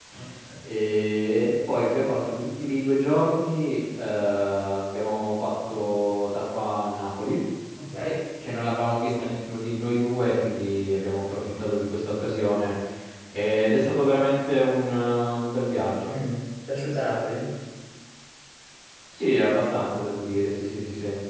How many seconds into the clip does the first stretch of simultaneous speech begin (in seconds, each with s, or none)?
none